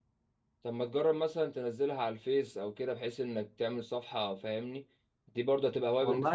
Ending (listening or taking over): taking over